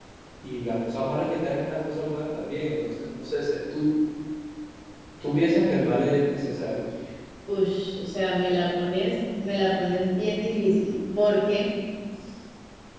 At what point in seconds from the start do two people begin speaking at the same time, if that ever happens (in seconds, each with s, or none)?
none